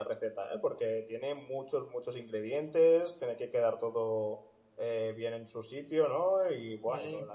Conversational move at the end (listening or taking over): listening